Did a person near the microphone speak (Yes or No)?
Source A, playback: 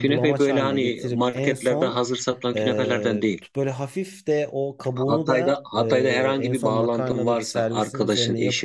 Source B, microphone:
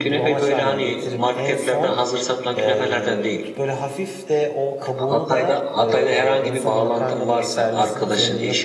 No